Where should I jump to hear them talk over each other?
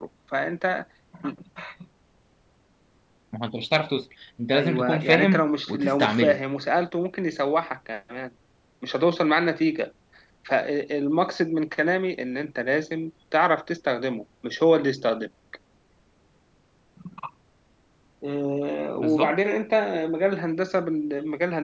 4.5 s

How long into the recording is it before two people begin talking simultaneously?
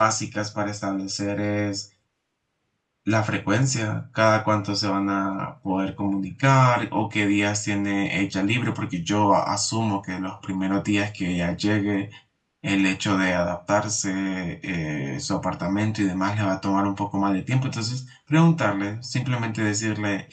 none

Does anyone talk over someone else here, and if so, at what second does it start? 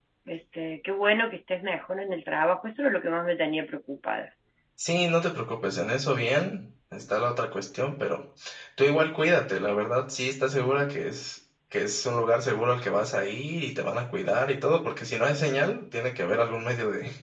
none

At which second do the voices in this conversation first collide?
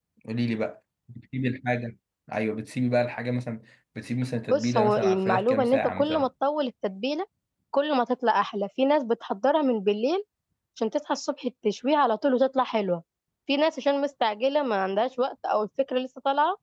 4.4 s

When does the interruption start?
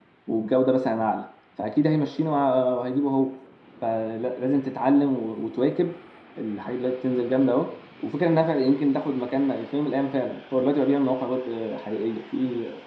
none

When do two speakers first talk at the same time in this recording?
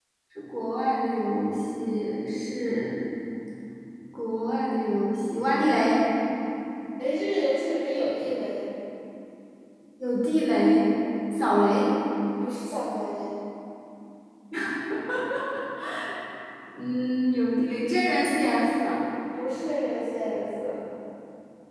none

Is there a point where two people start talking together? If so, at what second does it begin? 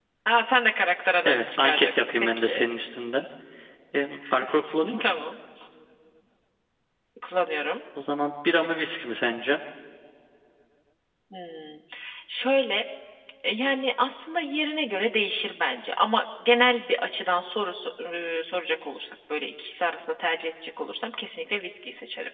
1.2 s

